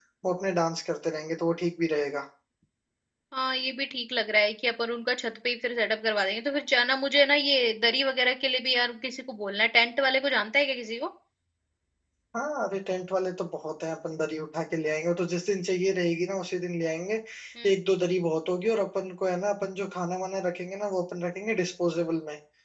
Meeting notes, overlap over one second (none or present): none